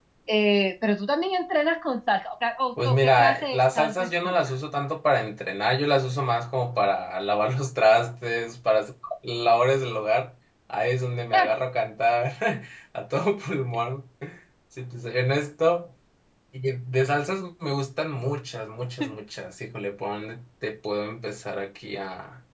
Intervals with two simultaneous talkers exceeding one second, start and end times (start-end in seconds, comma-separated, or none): 2.8-4.6